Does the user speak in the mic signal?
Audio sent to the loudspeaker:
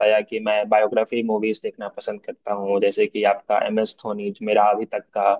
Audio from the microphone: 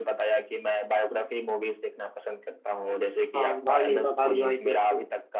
Yes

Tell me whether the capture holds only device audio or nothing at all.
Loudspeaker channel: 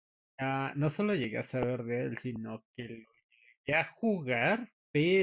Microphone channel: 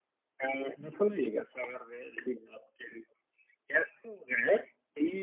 Yes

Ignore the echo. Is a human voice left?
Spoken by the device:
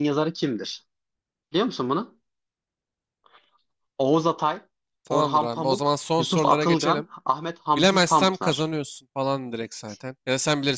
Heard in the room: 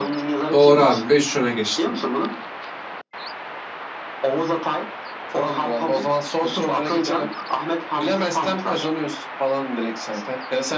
Yes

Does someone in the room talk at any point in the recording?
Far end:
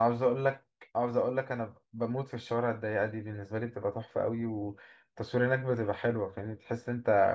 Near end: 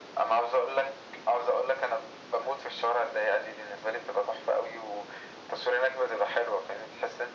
No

